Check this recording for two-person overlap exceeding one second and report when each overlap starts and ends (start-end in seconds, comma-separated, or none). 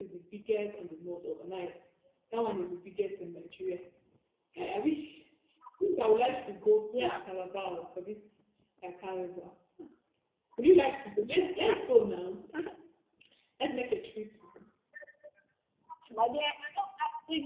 none